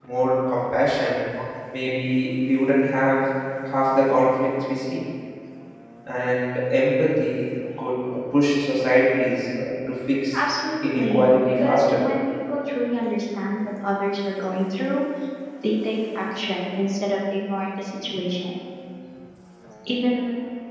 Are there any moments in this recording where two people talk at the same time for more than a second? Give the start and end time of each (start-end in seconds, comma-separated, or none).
10.8-12.0